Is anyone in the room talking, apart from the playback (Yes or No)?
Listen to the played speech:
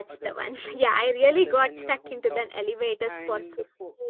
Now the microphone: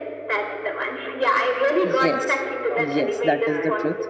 Yes